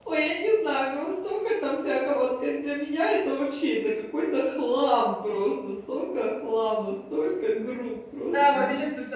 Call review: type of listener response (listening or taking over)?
taking over